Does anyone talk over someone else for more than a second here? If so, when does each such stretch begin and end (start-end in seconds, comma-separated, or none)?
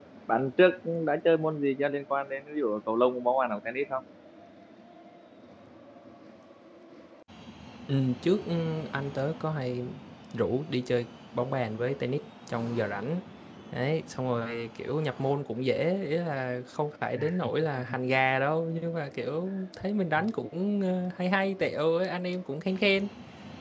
none